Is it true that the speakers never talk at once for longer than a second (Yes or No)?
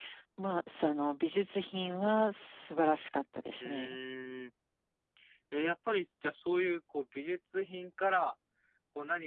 Yes